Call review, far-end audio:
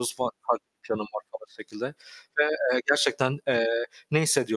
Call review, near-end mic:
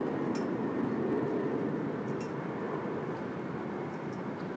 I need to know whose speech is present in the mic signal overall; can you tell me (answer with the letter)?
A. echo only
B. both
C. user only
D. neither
D